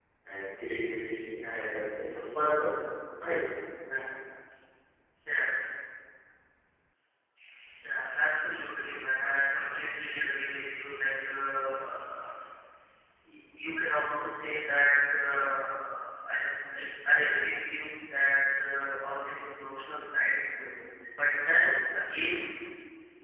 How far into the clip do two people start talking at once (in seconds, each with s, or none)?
none